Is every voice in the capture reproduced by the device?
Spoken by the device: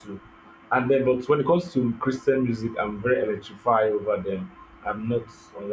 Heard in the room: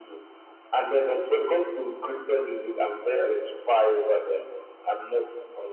Yes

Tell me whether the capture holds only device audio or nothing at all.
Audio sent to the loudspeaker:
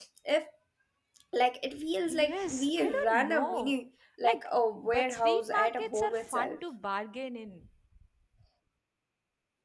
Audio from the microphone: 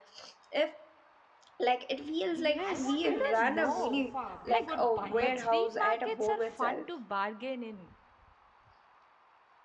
No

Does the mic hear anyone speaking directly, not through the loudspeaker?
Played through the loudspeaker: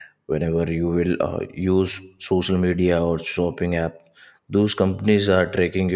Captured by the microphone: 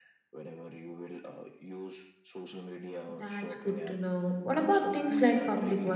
Yes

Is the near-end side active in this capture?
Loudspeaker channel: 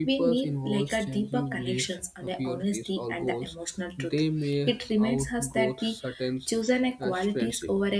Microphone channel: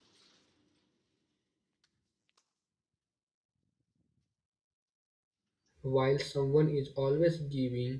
Yes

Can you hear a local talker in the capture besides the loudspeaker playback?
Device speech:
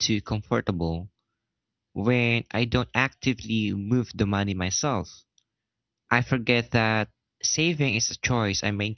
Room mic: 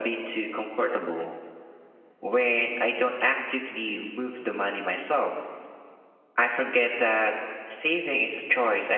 No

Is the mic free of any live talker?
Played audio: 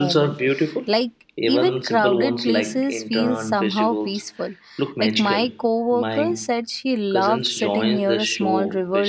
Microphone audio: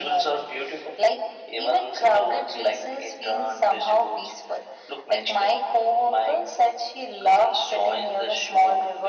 Yes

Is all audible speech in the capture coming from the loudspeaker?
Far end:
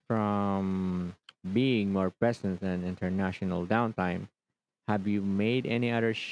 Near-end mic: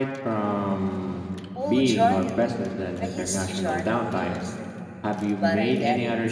No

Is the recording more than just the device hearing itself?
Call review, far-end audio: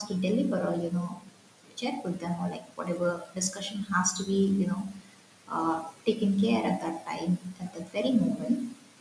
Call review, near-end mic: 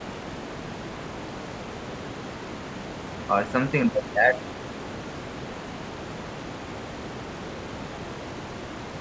Yes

